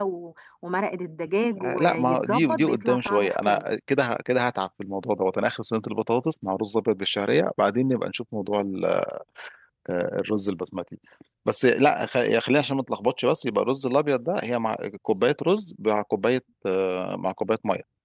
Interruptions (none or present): present